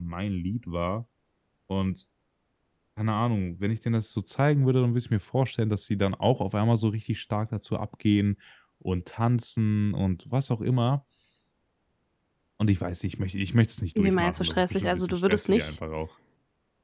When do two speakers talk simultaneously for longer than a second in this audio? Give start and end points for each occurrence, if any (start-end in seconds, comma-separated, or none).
14.0-15.7